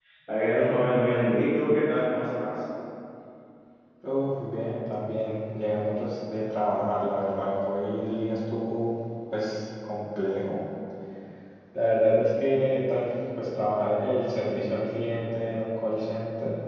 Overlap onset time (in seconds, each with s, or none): none